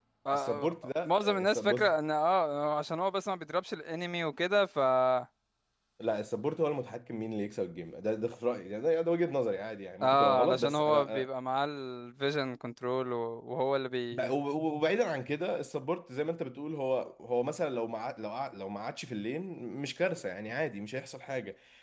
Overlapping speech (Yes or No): Yes